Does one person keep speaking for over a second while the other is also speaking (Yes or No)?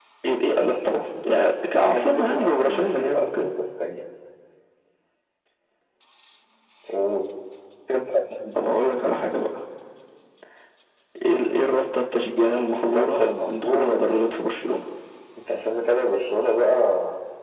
Yes